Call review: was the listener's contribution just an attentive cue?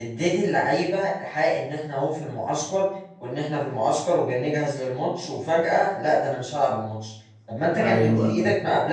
Yes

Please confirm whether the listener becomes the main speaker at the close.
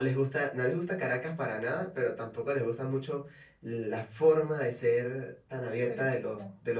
No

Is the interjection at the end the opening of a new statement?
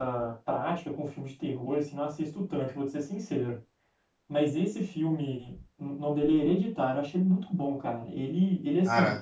No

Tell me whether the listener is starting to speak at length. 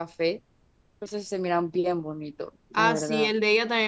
Yes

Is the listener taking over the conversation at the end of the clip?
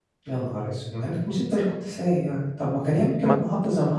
No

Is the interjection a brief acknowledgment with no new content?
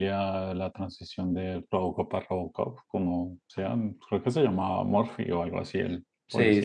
No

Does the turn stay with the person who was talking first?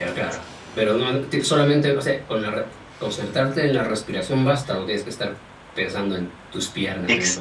No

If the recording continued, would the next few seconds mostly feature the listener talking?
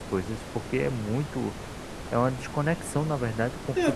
Yes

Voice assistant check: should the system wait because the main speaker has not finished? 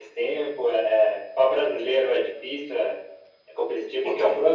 Yes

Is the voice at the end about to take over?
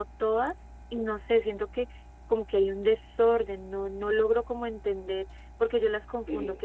No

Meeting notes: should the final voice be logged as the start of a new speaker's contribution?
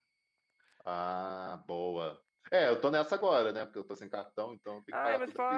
Yes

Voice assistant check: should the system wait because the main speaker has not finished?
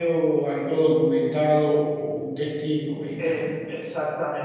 No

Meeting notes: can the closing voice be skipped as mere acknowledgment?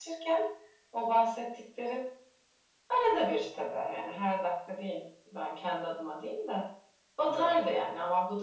Yes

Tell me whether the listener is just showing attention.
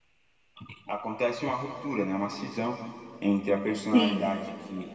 Yes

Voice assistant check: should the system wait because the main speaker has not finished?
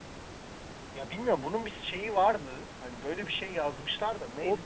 No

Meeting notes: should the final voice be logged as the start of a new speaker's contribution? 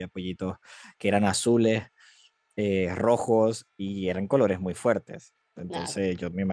No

